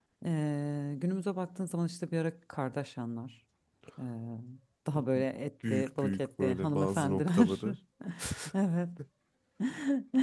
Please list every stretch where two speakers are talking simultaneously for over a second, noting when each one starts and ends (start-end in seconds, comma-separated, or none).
5.7-7.6